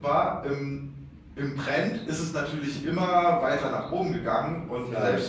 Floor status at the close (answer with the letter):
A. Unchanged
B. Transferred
A